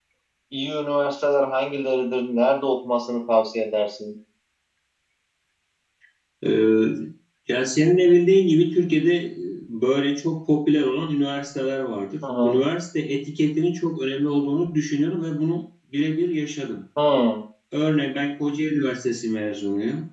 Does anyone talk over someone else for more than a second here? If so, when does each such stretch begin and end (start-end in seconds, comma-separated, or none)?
none